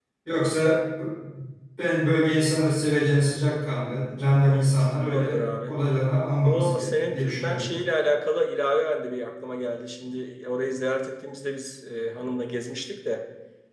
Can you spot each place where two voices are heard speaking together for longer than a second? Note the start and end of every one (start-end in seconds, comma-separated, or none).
4.5-5.8, 6.4-7.6